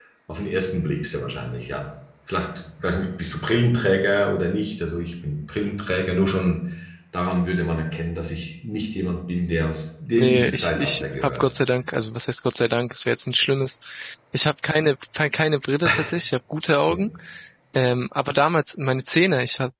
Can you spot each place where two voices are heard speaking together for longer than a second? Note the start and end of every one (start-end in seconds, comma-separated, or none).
10.2-11.5